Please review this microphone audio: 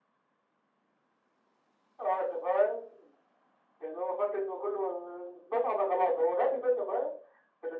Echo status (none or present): present